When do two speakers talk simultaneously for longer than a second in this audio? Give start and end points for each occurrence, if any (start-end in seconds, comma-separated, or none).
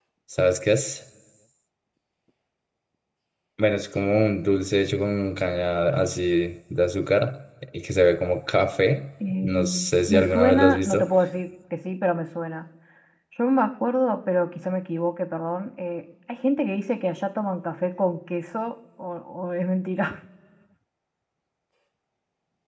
9.4-11.0